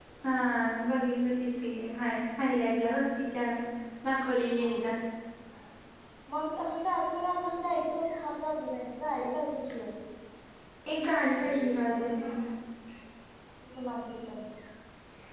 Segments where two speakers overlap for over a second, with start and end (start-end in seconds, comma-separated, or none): none